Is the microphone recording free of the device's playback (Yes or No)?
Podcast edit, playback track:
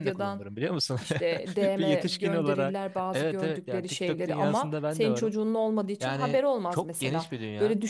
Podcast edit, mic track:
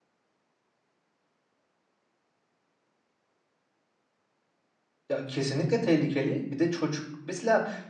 Yes